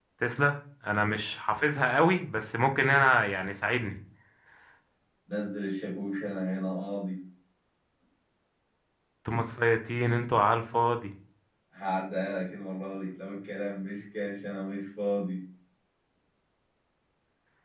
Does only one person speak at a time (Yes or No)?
Yes